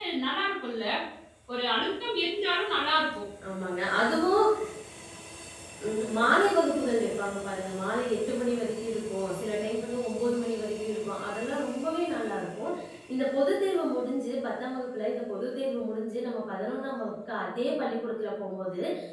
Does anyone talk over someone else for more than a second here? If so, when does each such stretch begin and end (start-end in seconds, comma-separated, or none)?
none